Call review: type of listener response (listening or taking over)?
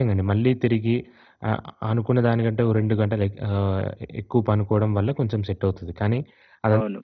listening